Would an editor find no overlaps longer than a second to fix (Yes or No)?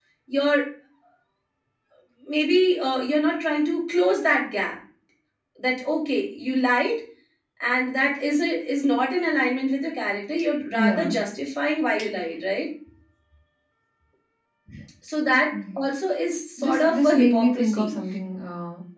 No